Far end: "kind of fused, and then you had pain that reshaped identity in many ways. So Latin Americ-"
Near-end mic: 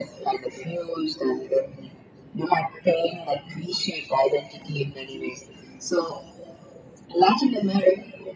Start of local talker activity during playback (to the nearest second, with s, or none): none